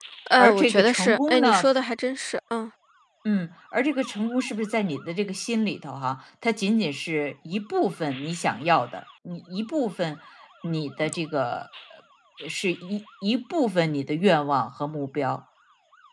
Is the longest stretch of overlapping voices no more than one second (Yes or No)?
No